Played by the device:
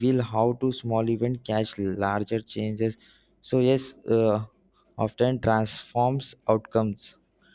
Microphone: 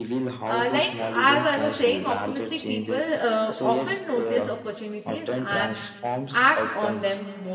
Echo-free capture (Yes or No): No